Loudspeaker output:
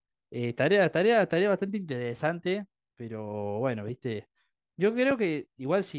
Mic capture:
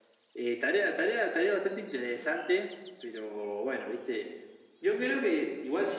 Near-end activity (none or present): none